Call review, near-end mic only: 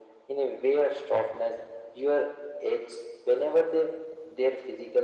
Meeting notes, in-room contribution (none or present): none